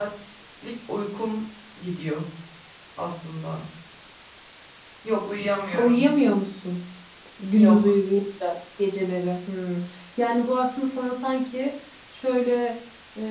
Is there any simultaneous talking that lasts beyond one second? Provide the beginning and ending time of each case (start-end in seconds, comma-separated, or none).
none